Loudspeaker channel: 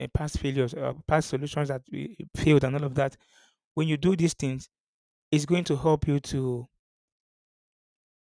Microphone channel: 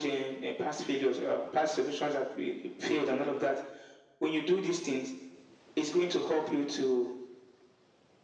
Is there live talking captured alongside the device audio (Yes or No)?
No